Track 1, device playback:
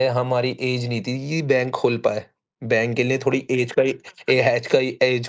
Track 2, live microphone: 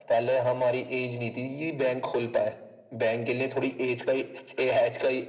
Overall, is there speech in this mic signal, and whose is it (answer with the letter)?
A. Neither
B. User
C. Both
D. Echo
D